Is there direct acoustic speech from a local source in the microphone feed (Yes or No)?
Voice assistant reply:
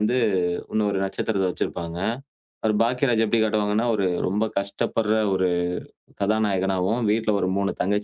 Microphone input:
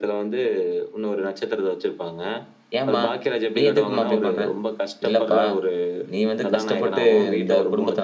Yes